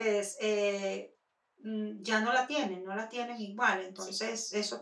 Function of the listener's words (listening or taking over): listening